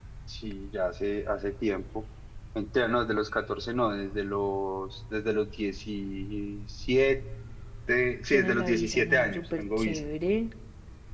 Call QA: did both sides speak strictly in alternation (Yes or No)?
No